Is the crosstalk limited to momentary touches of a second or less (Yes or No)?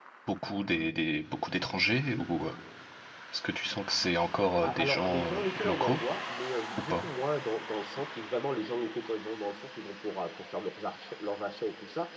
No